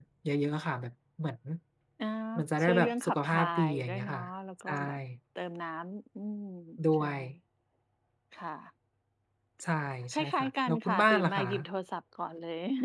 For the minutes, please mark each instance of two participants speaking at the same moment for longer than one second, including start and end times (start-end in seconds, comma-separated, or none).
2.6-4.2, 10.1-11.4